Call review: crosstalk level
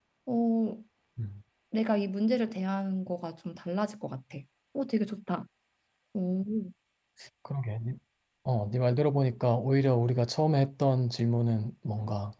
none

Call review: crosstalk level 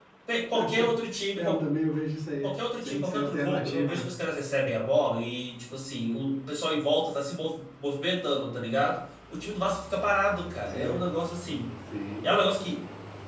present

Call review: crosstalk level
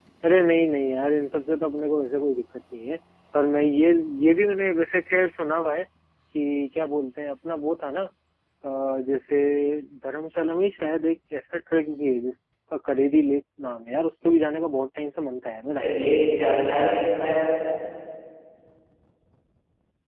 none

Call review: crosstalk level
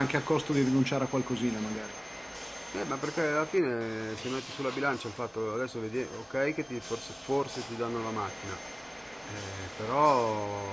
none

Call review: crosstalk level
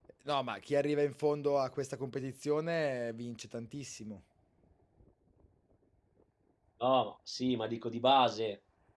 none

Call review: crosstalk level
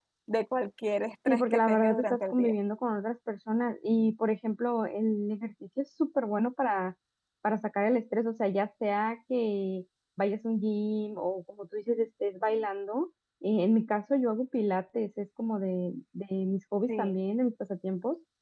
present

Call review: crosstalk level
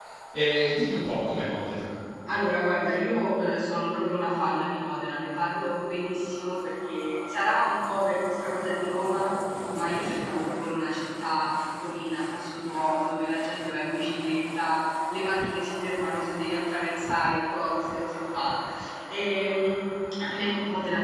none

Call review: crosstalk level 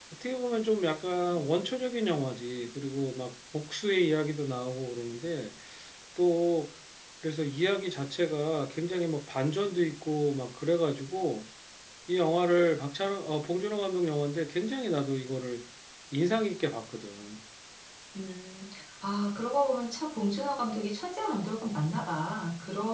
none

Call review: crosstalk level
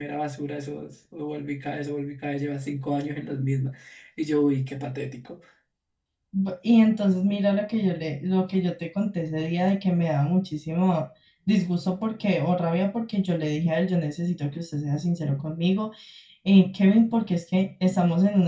none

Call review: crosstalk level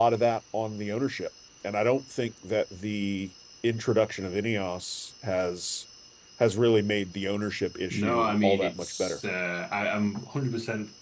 present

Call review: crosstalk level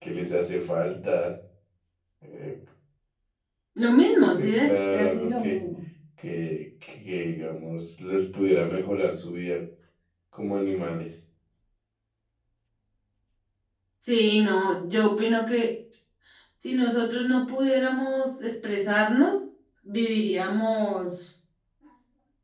present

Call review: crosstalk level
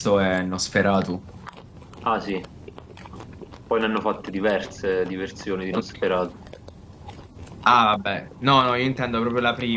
none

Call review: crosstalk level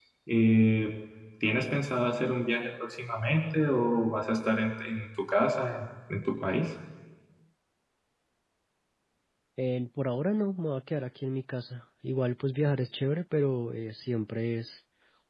none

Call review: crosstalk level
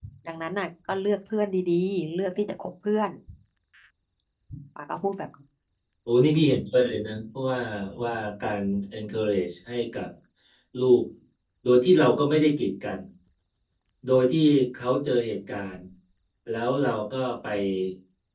none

